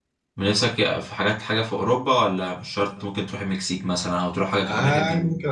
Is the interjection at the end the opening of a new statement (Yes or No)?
Yes